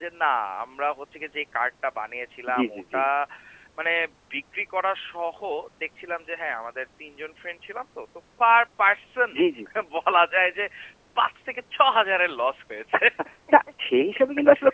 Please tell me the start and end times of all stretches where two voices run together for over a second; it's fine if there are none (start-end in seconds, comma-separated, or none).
none